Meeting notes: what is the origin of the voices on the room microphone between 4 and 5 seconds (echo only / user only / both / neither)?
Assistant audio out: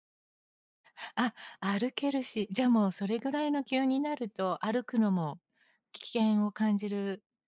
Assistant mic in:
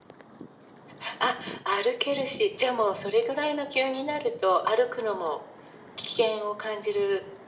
echo only